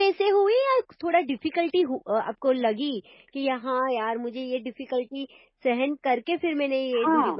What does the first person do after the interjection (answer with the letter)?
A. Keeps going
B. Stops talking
B